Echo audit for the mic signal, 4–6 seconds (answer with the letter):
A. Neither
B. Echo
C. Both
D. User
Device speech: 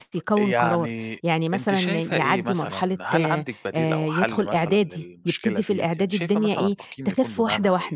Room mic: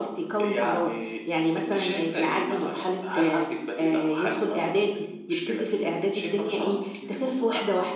B